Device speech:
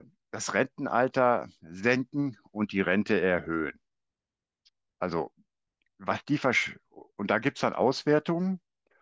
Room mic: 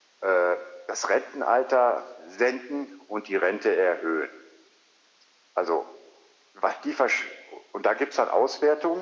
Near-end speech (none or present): none